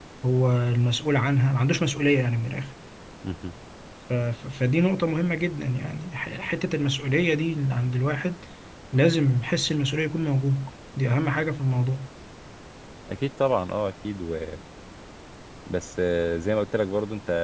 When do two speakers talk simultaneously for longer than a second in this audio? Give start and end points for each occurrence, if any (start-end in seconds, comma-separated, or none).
none